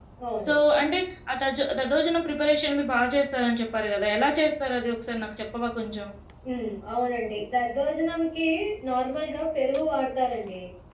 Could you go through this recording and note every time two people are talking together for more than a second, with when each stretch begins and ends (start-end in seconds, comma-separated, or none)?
none